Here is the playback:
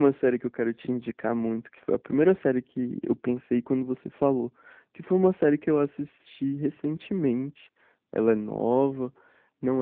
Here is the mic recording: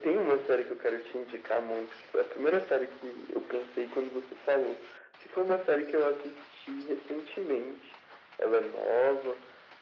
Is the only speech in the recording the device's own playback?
Yes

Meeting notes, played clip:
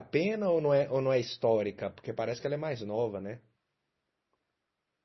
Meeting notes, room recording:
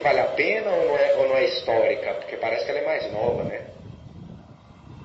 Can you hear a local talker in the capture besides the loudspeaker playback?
No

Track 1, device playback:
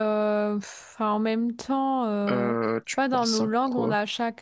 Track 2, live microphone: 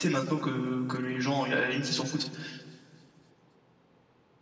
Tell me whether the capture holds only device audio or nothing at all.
No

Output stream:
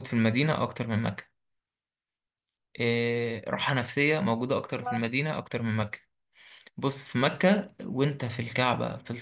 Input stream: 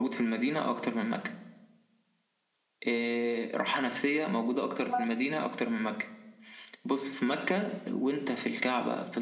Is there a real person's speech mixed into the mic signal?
No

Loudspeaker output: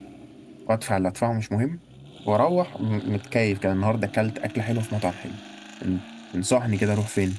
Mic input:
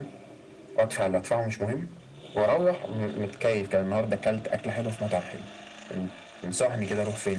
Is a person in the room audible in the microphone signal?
No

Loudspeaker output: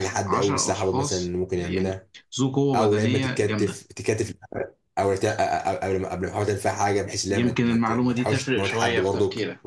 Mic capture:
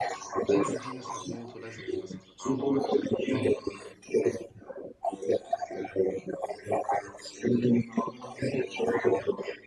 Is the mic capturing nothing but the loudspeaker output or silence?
No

